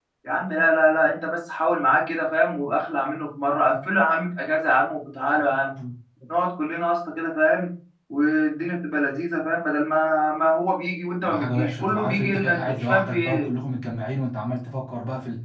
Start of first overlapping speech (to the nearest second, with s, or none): 11 s